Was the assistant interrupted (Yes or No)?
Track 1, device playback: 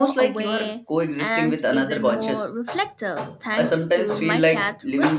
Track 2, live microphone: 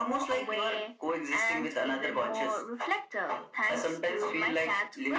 No